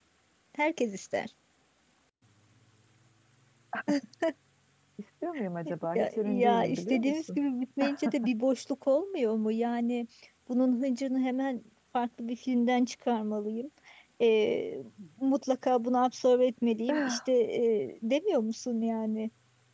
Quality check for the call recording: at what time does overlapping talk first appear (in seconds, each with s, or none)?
6.0 s